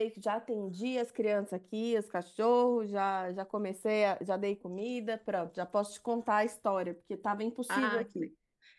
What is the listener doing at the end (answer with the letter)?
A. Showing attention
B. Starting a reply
B